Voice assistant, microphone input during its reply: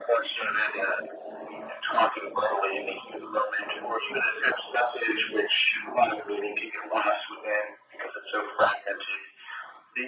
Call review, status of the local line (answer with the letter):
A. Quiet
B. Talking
A